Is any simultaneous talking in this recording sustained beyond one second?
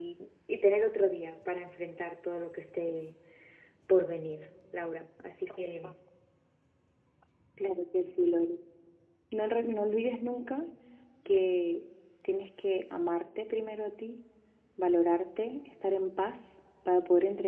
No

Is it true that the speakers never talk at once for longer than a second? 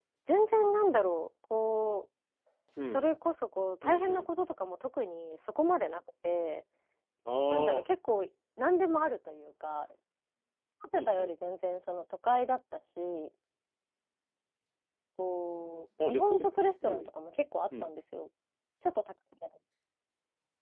Yes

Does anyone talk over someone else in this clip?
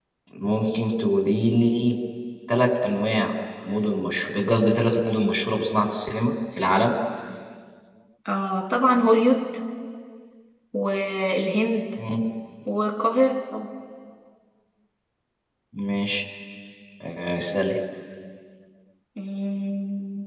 No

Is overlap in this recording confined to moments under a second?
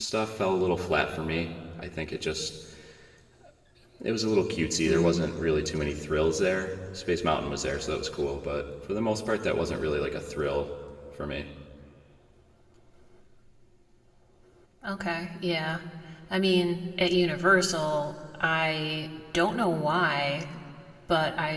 Yes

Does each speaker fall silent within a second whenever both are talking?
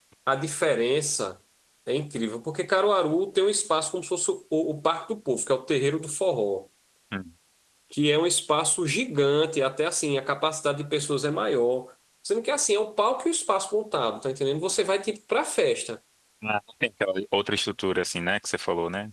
Yes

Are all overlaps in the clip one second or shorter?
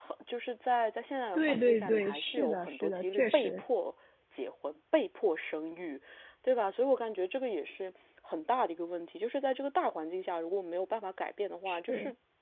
No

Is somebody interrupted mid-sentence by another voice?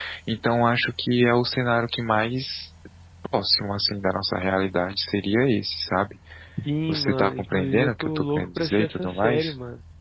Yes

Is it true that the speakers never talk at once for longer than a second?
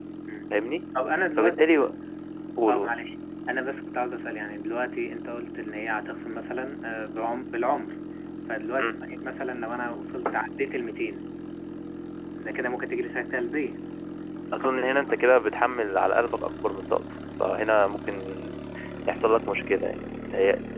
Yes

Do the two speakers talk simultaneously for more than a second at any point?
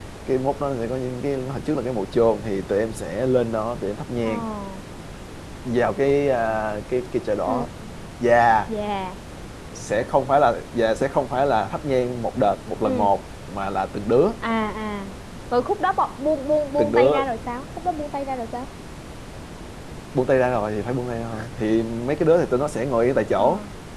No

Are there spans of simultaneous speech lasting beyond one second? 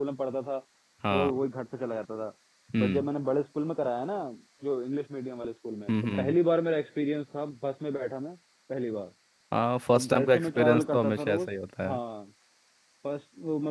Yes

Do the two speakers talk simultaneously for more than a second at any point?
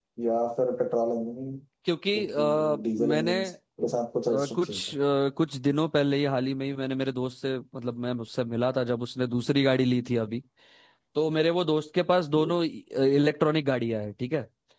Yes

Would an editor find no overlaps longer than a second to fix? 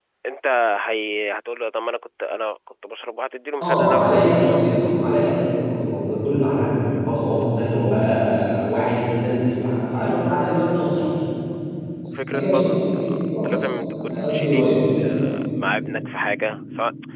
No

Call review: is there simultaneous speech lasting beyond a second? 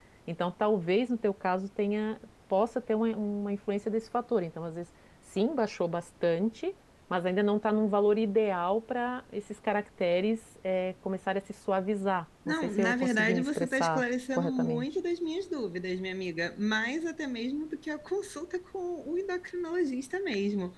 Yes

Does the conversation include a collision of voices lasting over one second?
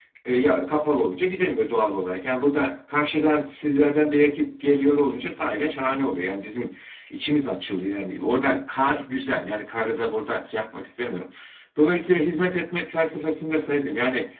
No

